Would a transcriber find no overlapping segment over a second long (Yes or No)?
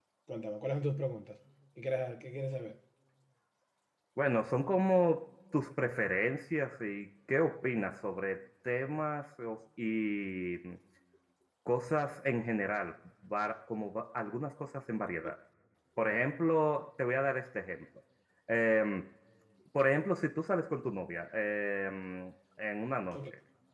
Yes